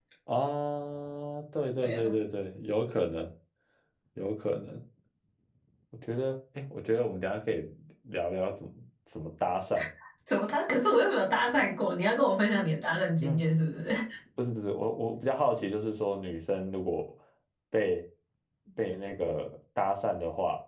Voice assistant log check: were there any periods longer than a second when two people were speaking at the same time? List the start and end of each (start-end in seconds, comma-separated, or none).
none